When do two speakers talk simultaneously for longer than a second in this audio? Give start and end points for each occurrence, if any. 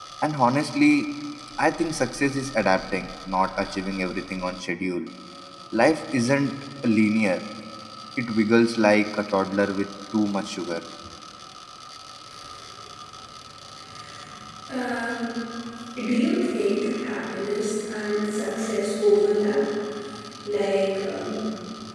none

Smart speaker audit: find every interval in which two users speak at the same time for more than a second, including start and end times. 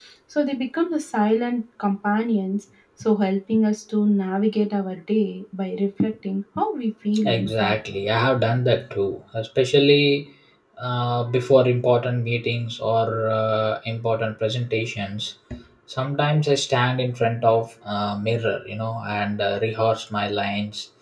none

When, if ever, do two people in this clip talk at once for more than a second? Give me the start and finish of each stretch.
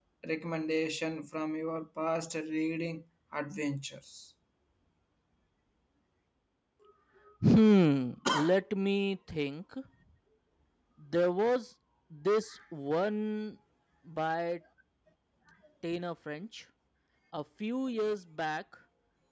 none

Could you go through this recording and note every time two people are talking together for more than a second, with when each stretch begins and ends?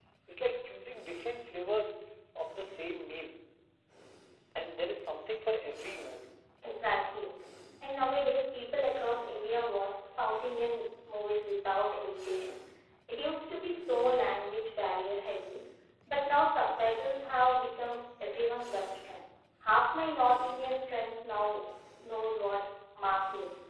none

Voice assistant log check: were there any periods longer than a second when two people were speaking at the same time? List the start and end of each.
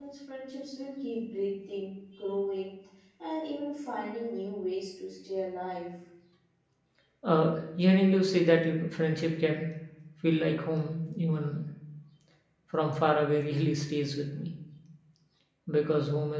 none

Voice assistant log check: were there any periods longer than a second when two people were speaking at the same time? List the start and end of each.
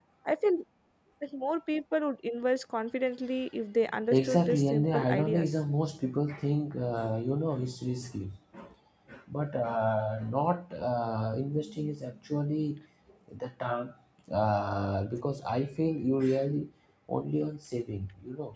4.1-5.5

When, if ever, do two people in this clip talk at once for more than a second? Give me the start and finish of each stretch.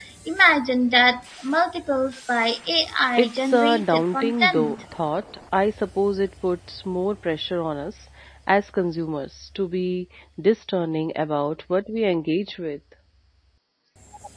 3.2-4.8

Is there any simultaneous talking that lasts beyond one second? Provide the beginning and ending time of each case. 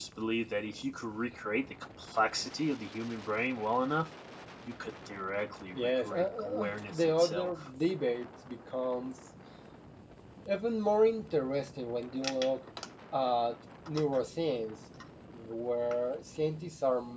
5.8-7.7

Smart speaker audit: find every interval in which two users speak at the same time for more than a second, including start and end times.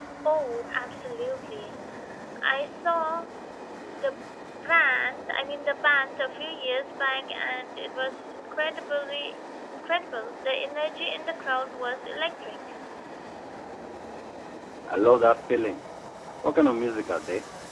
none

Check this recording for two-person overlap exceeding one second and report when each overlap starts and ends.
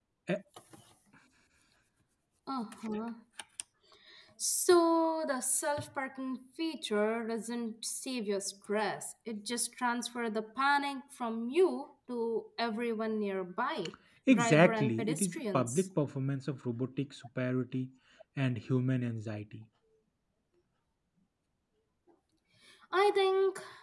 14.3-15.9

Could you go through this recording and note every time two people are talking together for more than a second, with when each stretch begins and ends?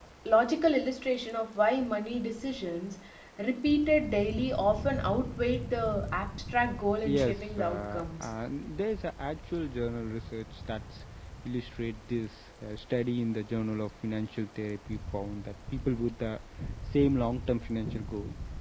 7.0-8.2

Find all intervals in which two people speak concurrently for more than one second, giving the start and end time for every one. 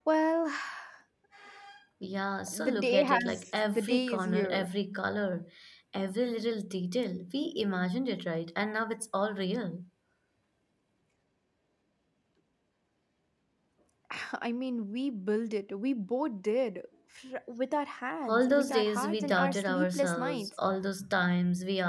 2.5-4.7, 18.2-20.6

